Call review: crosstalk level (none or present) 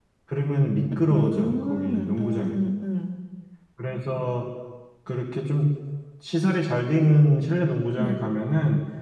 present